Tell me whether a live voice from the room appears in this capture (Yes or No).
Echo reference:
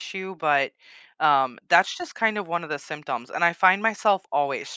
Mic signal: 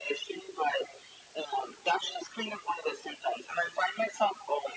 No